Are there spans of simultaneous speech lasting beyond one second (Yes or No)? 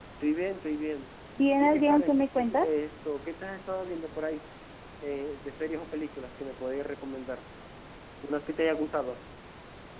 Yes